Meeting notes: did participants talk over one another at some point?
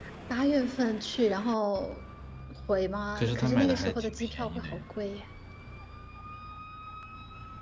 Yes, from 3.2 s

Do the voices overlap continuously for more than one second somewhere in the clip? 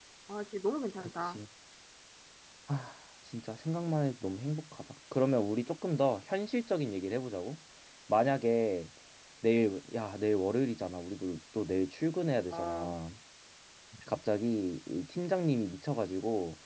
No

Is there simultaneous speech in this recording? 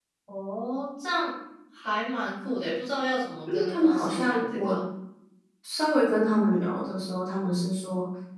Yes, from 3.5 s

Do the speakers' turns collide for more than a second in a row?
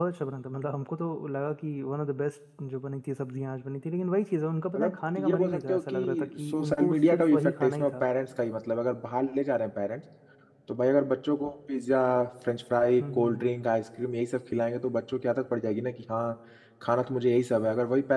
Yes, from 4.8 s

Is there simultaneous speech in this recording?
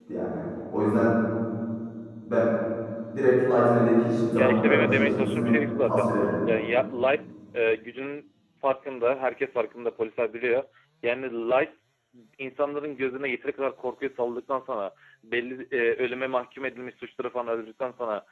Yes, from 4.4 s

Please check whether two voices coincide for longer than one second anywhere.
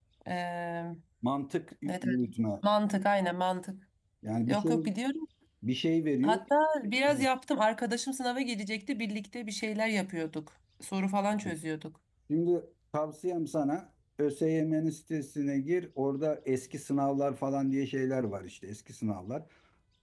No

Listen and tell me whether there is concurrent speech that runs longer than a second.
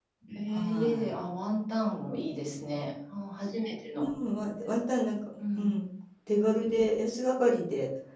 No

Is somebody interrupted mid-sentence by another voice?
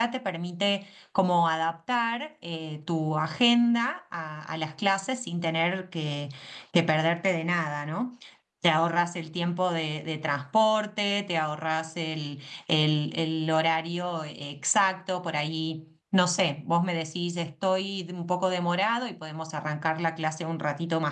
No

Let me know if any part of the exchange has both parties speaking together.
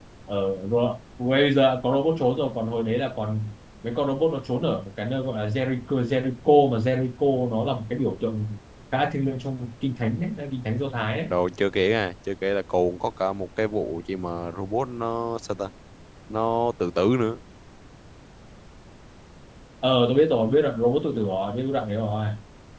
No

